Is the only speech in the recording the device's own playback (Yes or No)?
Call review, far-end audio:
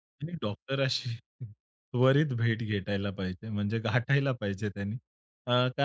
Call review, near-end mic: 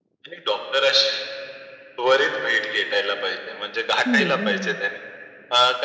No